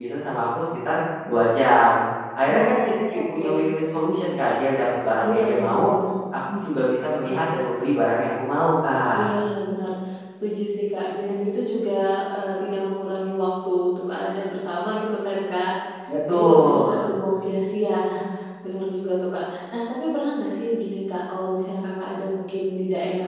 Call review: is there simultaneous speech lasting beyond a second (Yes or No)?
Yes